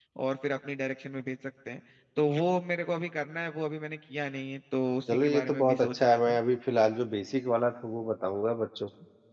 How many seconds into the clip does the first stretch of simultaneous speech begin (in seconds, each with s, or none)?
5.1 s